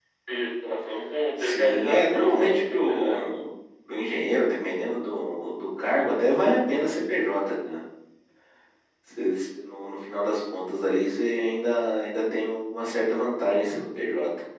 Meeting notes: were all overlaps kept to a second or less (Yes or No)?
No